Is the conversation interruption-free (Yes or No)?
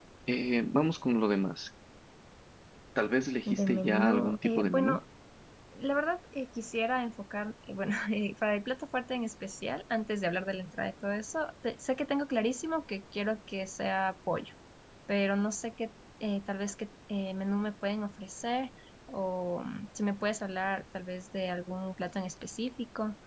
No